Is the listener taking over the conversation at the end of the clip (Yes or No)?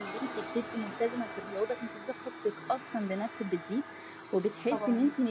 No